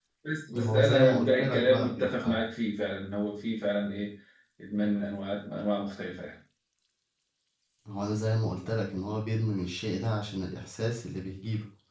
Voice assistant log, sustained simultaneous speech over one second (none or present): present